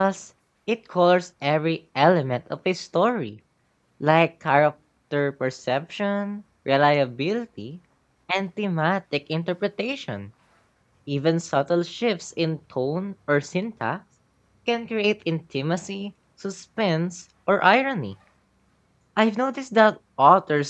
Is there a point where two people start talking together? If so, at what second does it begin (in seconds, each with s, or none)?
none